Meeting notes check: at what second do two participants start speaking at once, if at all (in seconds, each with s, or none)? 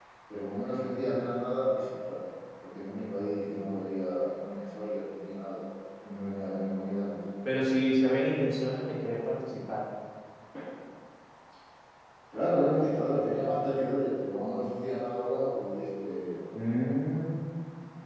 none